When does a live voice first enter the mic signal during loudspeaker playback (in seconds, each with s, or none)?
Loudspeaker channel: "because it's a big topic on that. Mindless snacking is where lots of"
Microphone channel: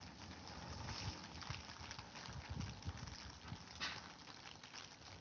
none